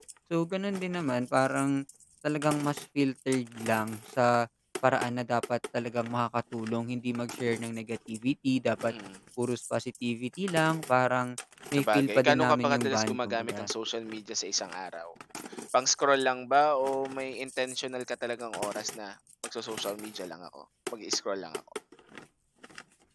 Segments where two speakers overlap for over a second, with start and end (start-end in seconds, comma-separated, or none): 11.7-13.7